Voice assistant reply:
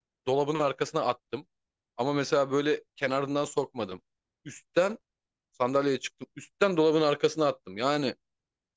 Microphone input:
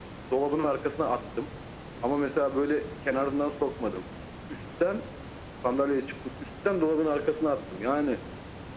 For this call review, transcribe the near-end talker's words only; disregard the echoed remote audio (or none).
none